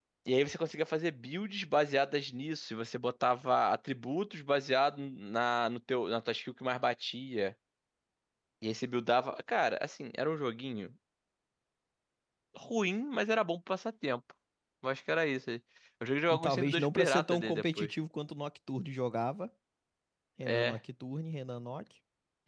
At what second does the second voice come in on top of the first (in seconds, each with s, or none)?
16.4 s